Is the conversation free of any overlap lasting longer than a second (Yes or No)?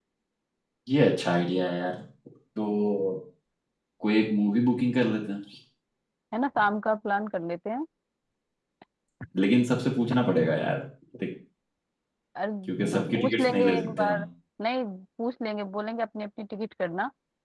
No